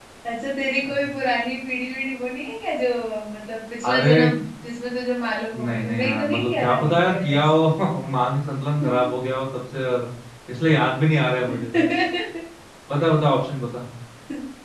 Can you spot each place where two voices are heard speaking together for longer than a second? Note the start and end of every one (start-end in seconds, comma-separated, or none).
5.5-7.5